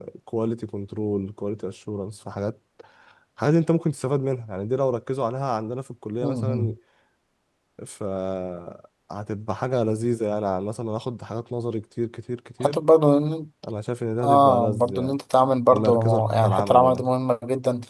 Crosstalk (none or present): present